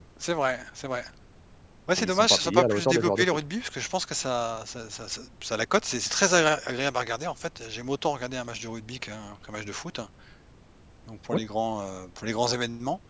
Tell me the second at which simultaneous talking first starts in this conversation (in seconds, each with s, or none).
1.9 s